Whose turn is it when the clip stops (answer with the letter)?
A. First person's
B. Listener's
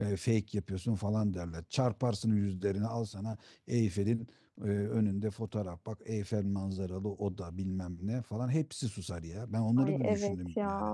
B